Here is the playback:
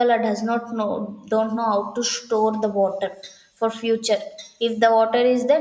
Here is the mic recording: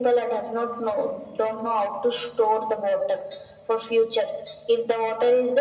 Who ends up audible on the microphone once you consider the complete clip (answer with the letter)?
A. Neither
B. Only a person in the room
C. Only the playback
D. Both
C